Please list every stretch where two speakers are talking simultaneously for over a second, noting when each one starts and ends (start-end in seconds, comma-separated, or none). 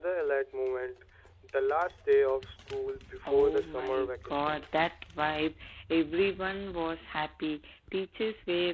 3.2-4.6